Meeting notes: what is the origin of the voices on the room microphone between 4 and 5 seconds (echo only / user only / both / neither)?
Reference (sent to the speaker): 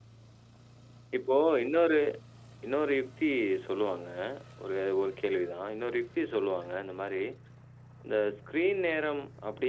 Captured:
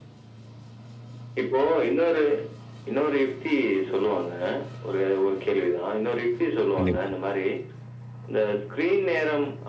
echo only